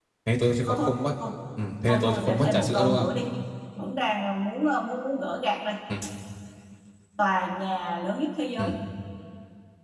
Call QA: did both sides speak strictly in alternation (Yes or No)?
No